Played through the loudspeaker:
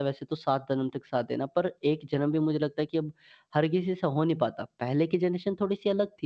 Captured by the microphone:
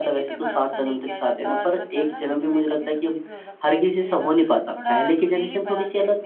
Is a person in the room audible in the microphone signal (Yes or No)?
Yes